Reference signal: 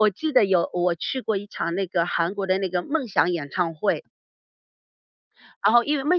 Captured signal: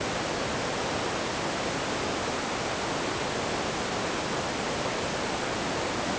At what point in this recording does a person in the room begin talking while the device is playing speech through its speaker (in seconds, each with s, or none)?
none